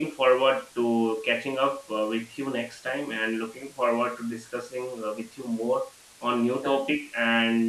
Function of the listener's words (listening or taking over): listening